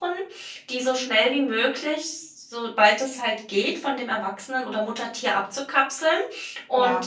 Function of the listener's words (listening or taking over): listening